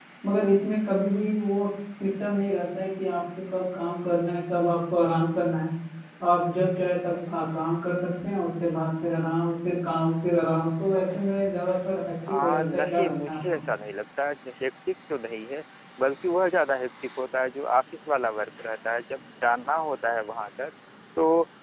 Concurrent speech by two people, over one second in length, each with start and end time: 12.3-13.6

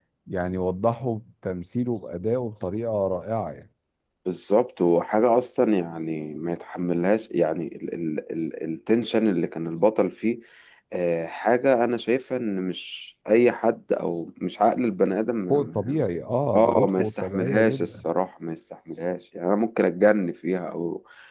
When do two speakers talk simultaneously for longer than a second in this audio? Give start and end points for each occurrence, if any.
16.5-17.9

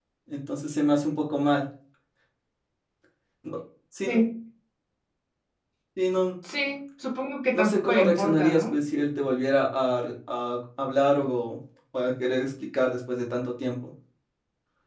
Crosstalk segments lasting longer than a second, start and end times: 7.5-8.8

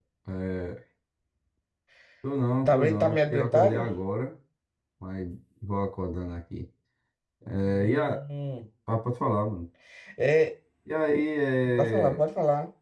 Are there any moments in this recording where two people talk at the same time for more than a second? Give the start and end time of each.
2.6-3.9

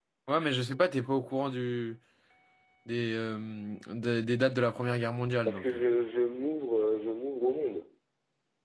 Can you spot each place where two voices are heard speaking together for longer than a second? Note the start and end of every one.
none

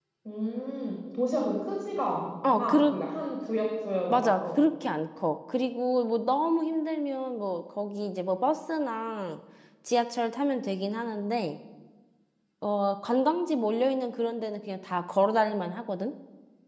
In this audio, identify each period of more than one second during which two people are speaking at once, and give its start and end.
none

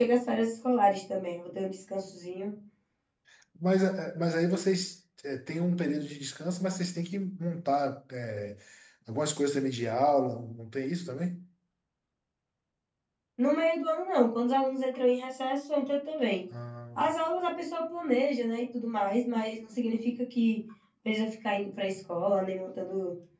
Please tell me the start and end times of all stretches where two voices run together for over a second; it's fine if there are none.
none

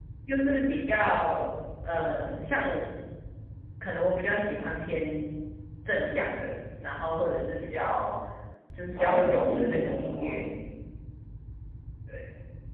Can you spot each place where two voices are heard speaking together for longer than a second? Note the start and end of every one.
8.9-10.3

